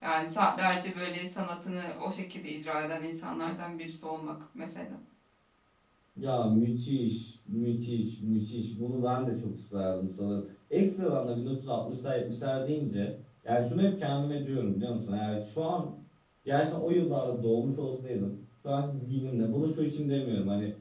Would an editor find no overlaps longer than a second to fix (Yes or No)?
Yes